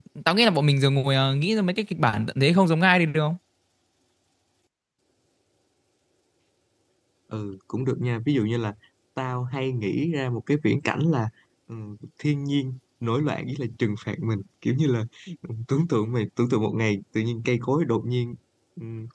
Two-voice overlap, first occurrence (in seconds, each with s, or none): none